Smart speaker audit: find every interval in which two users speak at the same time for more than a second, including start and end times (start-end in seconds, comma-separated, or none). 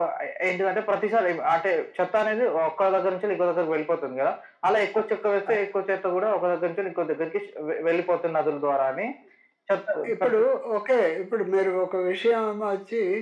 none